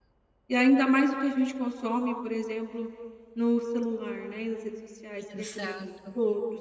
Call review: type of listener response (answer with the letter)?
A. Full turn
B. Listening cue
B